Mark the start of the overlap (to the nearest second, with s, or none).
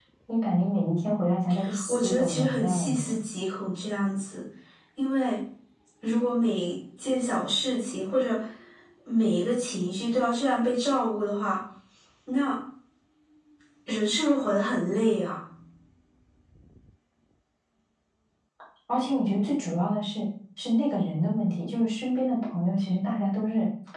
2 s